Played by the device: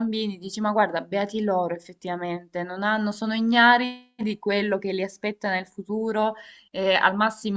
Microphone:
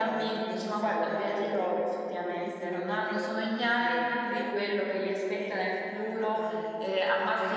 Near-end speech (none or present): present